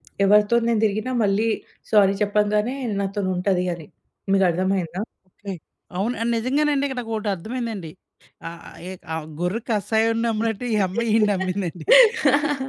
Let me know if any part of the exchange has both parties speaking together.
No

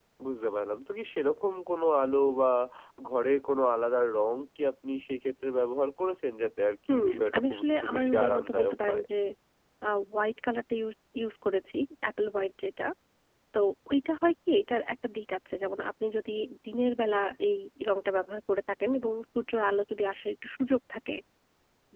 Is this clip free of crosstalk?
No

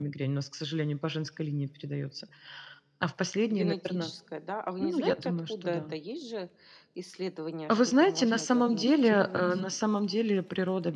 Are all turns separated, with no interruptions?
No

